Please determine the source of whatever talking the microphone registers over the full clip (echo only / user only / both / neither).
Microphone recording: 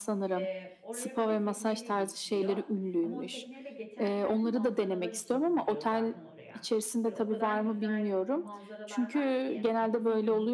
both